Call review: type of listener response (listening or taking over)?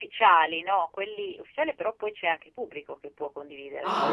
taking over